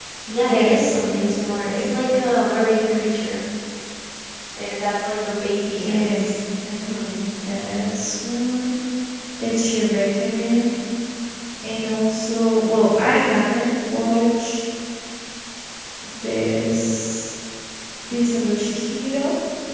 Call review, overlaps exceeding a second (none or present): present